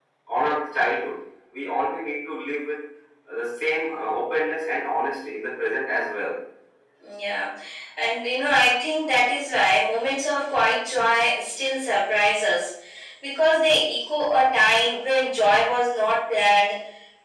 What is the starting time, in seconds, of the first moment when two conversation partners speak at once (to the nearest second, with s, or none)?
none